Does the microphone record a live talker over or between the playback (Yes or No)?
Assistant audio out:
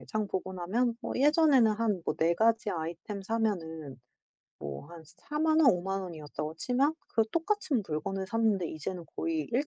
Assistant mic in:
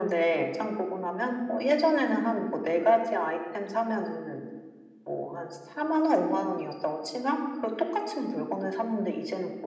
No